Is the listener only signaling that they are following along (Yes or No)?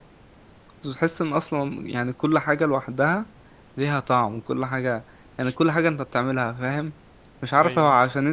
Yes